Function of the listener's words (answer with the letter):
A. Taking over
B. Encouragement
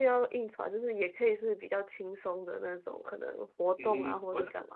A